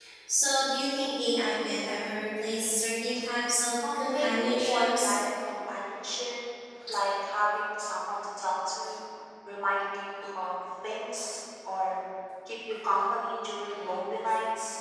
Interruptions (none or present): present